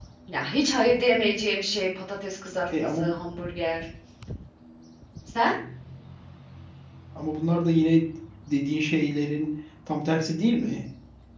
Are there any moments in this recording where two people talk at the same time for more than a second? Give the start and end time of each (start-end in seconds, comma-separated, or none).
none